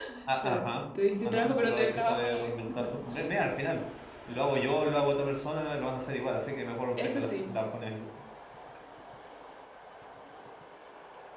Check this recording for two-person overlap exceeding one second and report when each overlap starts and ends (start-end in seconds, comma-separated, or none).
1.2-2.5